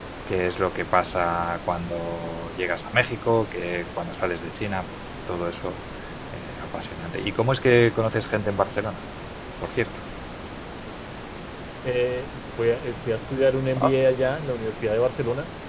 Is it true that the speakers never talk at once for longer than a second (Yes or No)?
Yes